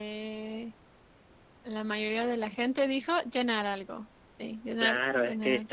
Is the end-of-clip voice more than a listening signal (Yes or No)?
Yes